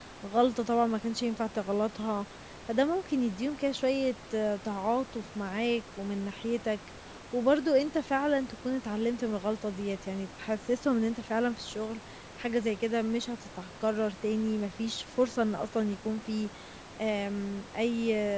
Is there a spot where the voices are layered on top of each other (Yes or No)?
No